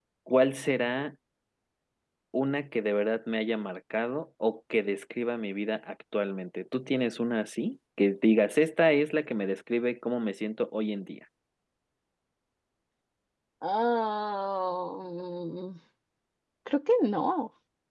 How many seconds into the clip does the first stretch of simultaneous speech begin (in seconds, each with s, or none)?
none